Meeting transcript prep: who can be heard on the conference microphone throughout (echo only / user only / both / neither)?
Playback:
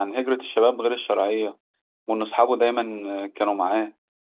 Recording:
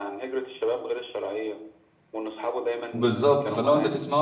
both